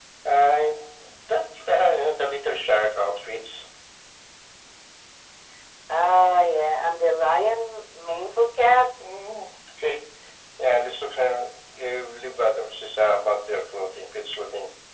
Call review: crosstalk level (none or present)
none